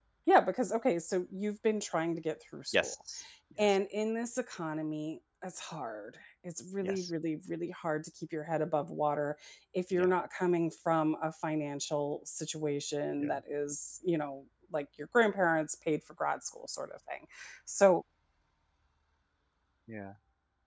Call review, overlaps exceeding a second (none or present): none